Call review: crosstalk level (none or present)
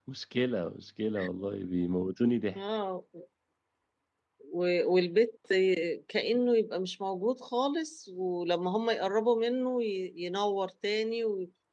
none